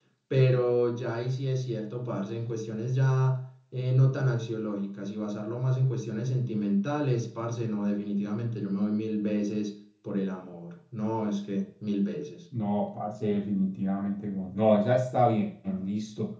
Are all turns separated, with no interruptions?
Yes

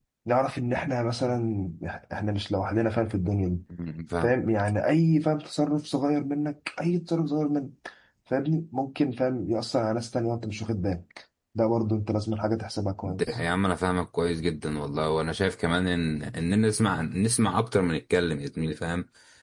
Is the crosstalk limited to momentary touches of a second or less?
Yes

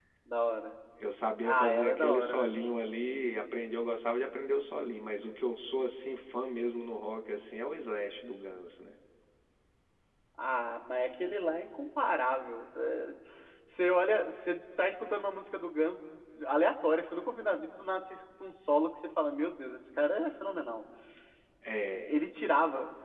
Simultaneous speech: Yes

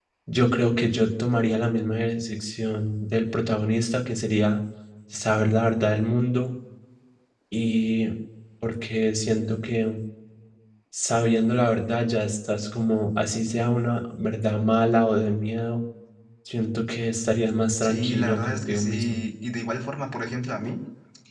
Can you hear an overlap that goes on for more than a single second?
Yes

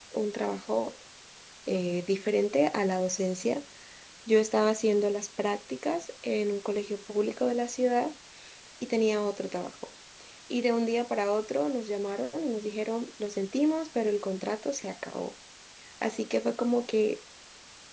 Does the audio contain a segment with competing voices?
No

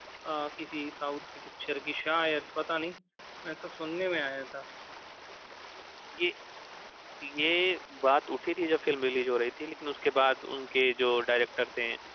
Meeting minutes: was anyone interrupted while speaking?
No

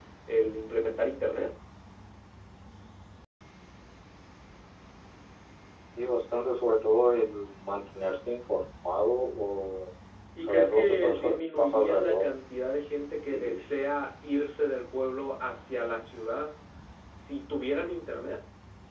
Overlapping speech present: Yes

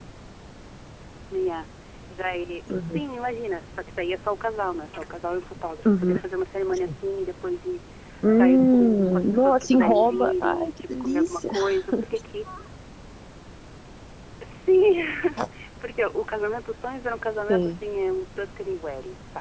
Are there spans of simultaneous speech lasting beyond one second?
Yes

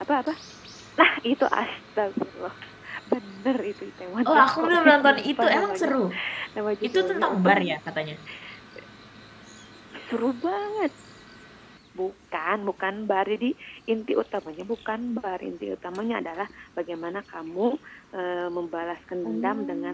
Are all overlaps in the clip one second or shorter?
No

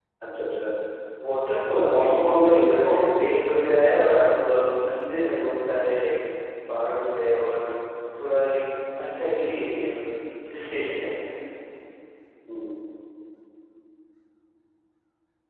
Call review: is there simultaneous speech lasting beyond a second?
Yes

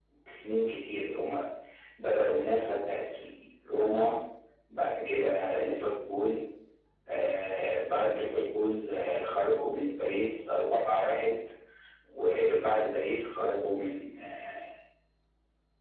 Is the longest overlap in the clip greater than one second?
No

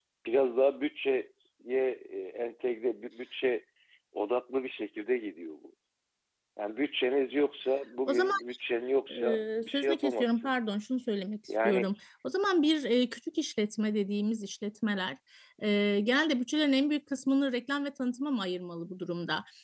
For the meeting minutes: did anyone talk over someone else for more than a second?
Yes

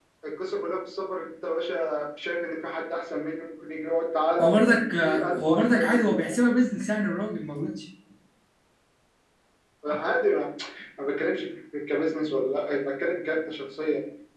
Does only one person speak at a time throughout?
No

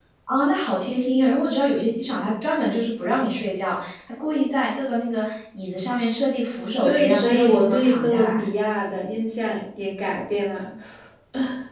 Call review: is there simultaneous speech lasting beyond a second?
Yes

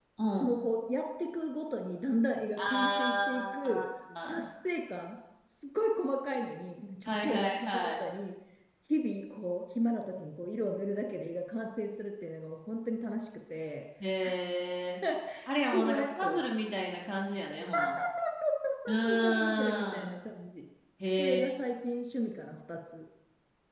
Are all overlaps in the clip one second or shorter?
No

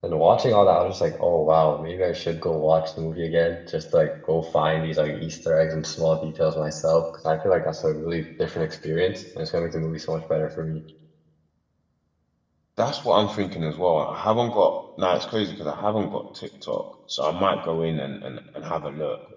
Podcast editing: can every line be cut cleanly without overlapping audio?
Yes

